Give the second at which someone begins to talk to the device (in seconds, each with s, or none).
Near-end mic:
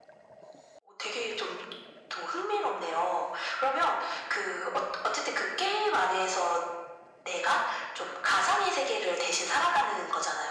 none